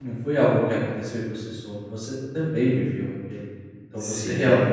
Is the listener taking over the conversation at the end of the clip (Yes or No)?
No